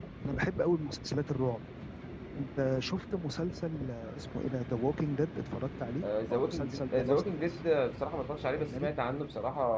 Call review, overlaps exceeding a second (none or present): present